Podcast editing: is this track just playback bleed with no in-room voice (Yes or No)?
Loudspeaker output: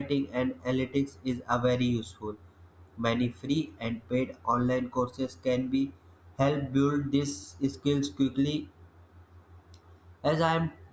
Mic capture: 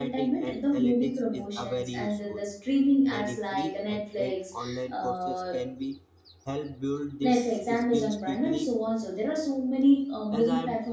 No